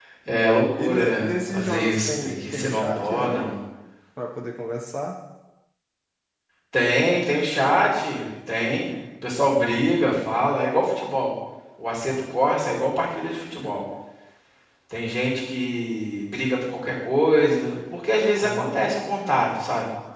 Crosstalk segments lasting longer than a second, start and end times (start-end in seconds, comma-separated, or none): 0.8-3.5